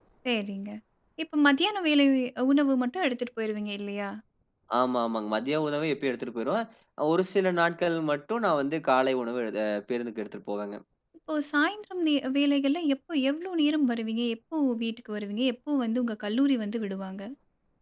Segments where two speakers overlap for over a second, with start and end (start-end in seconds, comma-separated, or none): none